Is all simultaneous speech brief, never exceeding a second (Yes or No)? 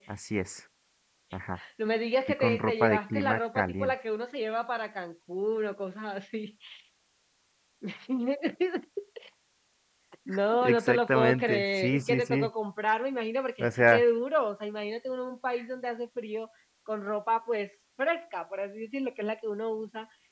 No